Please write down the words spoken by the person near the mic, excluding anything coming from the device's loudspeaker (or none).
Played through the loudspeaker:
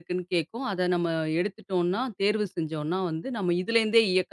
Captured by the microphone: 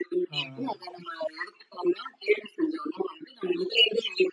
ஆ, ஆ.